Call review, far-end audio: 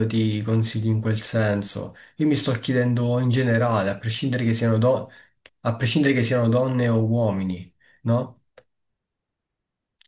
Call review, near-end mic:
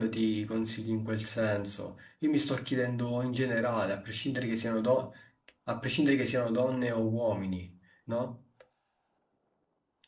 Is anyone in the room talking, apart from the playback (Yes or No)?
No